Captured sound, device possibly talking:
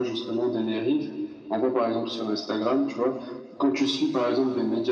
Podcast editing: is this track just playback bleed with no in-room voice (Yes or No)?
Yes